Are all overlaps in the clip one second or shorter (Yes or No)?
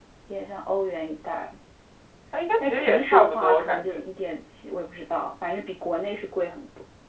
No